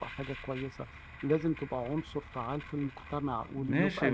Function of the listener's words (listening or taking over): taking over